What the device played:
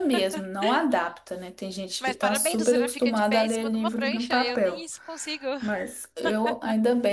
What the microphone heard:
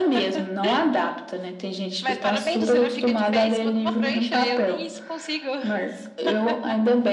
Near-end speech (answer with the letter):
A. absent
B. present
A